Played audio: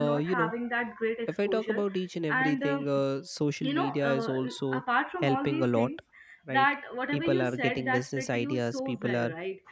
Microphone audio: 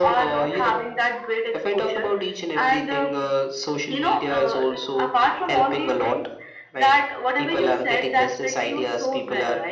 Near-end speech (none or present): none